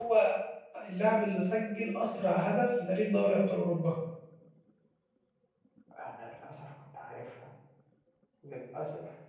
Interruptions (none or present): none